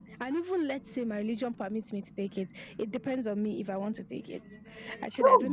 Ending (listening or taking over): listening